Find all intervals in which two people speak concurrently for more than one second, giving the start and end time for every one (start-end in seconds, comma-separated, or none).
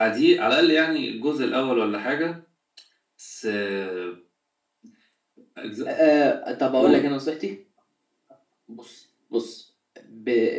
none